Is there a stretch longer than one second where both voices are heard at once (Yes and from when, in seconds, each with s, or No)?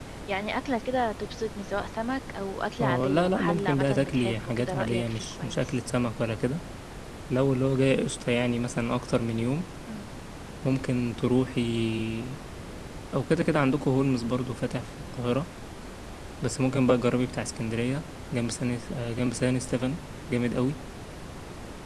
Yes, from 2.8 s